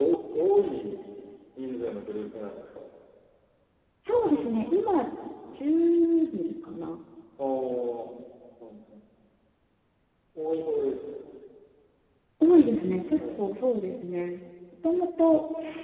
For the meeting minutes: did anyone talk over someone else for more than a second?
No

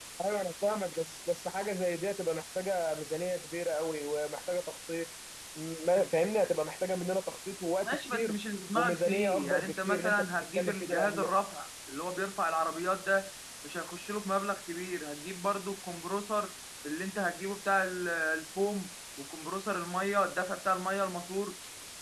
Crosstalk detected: Yes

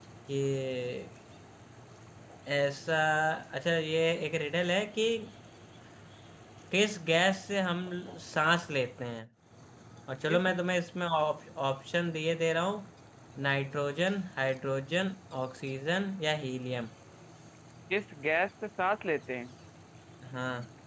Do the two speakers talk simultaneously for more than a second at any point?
No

